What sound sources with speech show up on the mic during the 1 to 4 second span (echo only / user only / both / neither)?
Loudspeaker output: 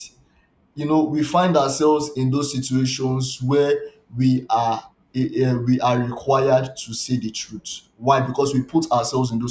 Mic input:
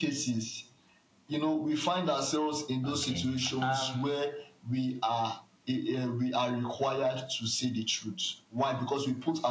both